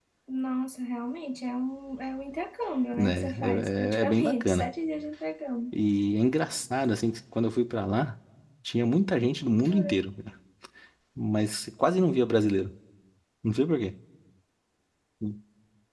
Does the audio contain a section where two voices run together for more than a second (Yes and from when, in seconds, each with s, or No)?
Yes, from 3.0 s